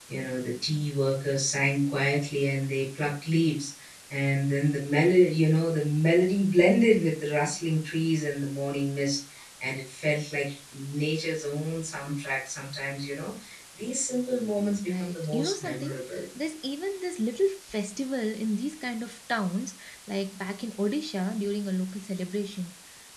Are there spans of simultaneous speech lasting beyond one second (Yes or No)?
Yes